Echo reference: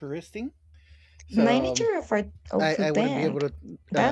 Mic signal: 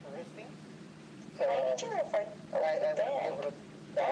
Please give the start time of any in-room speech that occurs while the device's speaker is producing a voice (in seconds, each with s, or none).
none